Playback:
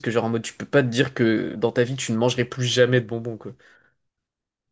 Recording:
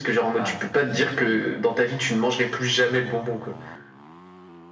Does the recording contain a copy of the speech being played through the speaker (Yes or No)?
Yes